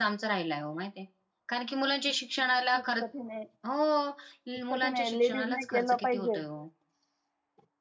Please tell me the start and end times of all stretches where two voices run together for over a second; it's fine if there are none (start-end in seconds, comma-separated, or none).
4.7-6.4